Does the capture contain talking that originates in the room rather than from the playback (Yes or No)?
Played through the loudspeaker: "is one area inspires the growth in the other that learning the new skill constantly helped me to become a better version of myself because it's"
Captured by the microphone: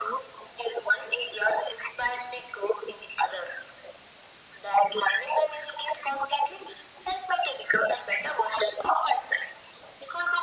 No